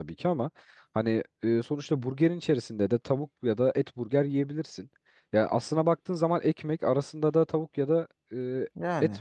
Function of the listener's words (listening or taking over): listening